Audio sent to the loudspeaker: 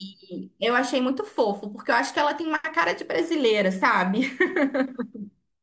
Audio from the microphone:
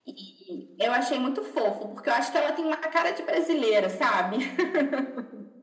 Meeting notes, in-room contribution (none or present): none